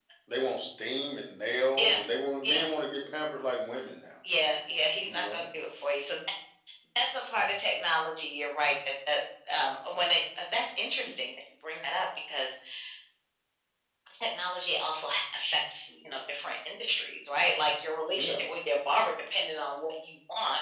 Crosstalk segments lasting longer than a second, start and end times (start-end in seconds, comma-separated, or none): none